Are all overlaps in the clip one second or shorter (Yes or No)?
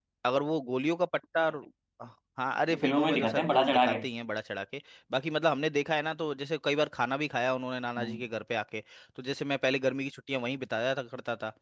No